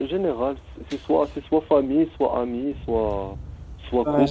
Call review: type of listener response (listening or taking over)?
taking over